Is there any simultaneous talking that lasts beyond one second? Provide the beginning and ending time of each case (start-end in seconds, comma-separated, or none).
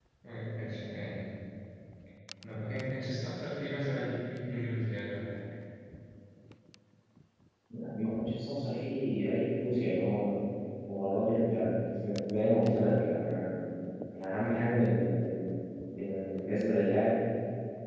none